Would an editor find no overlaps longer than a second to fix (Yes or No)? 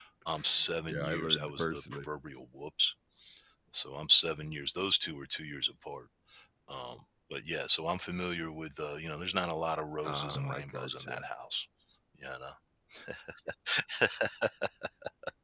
No